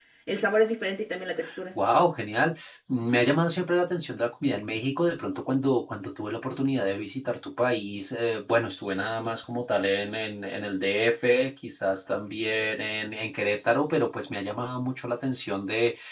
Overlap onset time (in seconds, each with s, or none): none